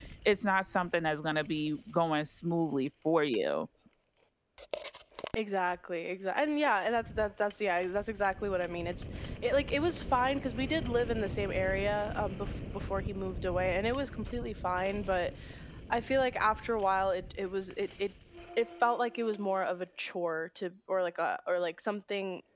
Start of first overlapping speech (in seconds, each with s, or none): none